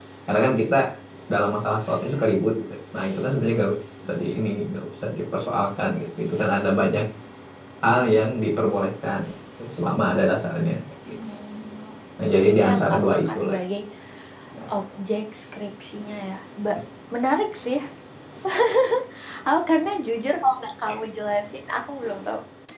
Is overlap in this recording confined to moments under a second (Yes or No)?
No